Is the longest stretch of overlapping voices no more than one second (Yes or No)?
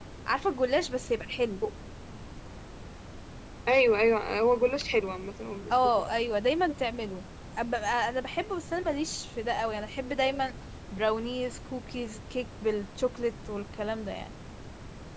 Yes